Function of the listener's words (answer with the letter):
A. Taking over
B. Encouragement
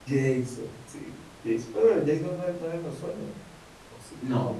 B